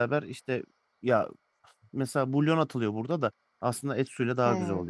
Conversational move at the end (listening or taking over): taking over